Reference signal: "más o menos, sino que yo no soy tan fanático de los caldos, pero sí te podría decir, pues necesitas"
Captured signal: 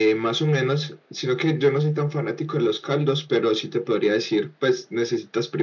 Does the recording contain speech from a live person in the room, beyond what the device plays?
No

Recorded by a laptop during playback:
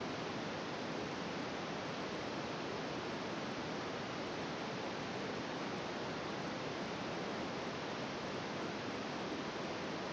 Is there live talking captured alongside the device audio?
No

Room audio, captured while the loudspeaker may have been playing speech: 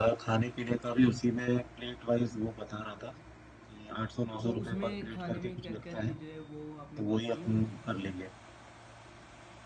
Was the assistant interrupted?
Yes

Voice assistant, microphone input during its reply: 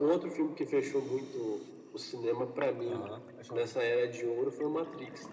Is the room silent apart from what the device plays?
No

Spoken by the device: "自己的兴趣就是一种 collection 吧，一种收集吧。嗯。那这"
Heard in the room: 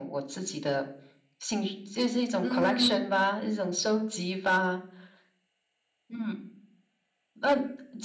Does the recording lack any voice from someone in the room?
No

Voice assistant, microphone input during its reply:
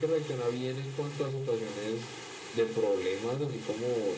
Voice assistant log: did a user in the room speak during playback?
No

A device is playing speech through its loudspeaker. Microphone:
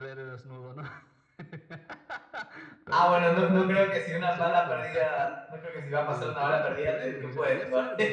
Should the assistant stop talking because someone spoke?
Yes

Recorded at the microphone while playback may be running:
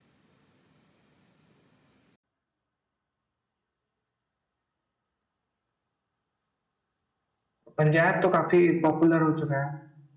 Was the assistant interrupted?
Yes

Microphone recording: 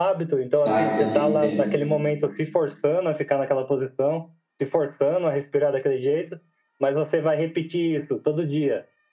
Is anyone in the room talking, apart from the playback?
Yes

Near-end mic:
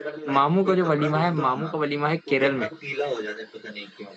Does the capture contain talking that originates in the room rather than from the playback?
Yes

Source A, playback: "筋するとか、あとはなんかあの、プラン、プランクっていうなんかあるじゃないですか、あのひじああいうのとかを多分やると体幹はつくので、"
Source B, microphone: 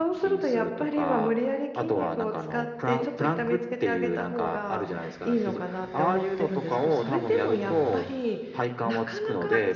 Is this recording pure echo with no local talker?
No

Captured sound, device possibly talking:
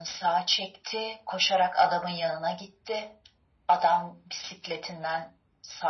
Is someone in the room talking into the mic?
No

